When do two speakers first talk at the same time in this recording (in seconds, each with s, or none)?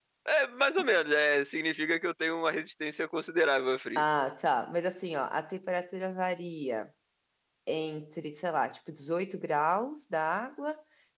none